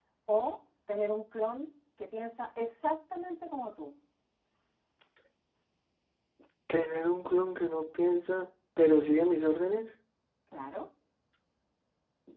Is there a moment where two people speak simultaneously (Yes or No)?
No